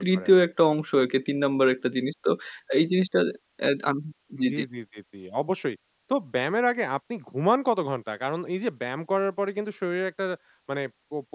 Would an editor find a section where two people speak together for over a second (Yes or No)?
No